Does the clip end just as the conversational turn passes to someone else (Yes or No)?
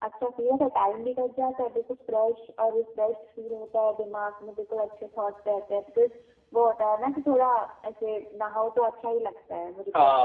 Yes